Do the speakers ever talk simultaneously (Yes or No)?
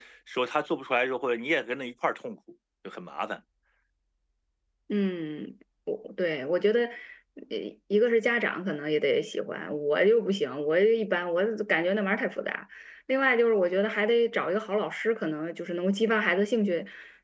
No